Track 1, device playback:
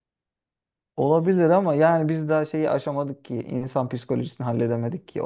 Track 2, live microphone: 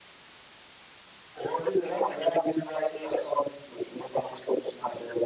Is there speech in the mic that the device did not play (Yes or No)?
No